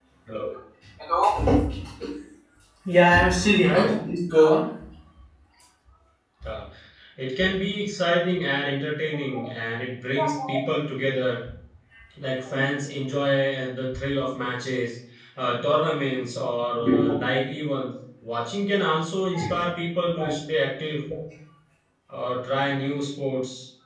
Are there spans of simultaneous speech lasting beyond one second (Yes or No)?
No